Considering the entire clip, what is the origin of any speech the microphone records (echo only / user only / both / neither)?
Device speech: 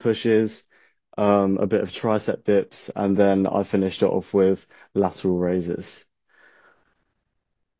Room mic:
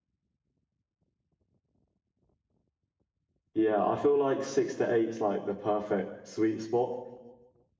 user only